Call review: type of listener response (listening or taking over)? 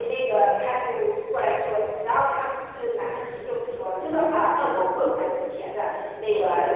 listening